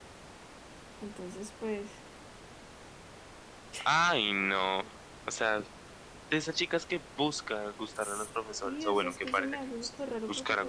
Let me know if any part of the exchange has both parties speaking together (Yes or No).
Yes